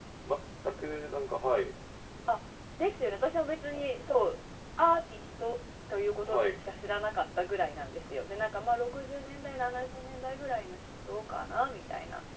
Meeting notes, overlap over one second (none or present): none